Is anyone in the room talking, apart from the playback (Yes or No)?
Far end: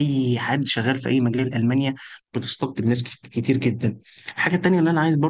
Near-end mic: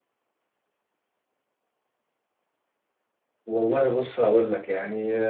Yes